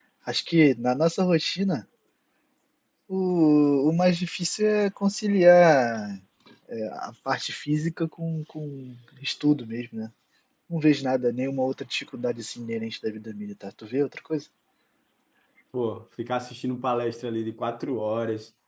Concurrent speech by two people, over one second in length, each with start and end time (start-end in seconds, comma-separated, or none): none